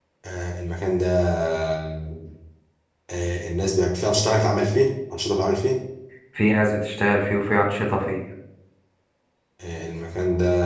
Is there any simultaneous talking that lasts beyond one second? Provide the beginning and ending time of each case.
none

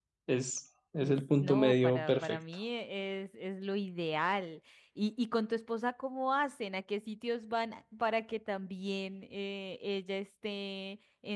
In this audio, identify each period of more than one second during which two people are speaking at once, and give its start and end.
1.0-2.4

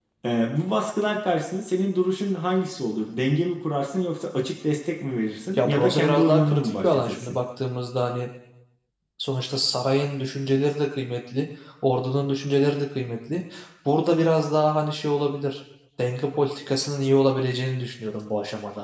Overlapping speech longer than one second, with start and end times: 5.6-7.3

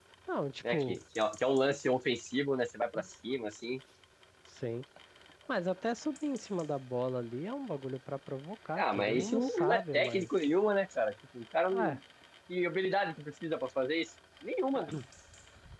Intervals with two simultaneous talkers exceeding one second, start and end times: 8.8-10.3

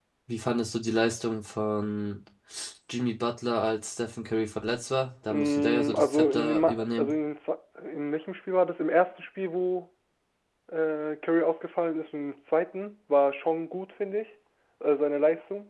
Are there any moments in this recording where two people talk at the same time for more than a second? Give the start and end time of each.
5.3-7.1

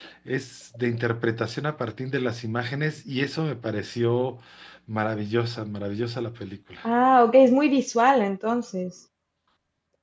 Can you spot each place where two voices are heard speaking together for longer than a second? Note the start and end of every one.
none

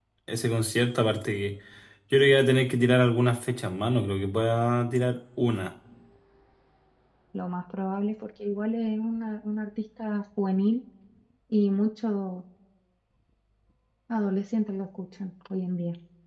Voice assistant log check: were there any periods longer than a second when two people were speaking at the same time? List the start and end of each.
none

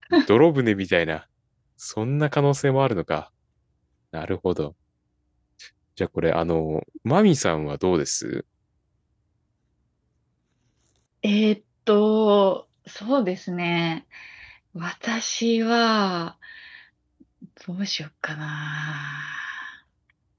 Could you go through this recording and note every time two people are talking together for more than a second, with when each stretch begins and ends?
none

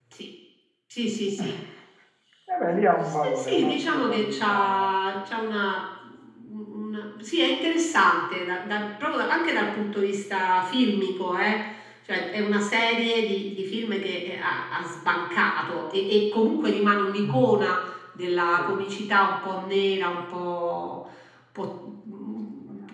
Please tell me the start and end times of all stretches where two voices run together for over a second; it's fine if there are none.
3.0-4.8

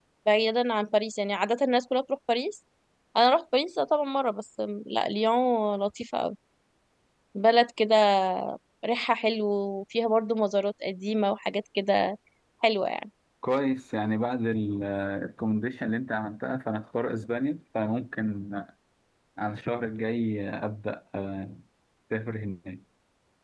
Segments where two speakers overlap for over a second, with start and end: none

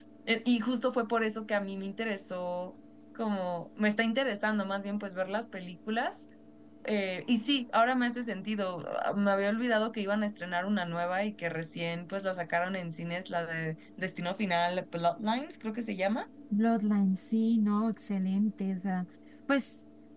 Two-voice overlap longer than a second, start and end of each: none

